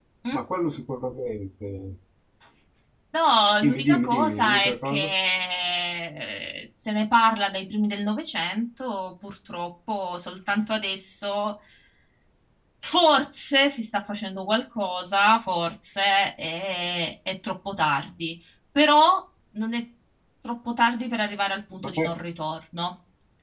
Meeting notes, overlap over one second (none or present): present